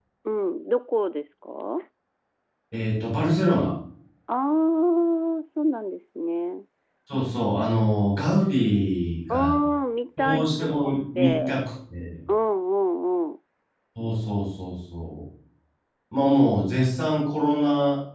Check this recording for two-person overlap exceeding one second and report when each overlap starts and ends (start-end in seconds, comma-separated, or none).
10.2-11.5